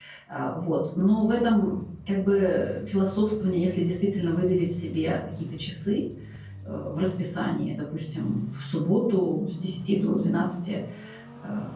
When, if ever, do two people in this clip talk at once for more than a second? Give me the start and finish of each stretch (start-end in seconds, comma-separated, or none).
none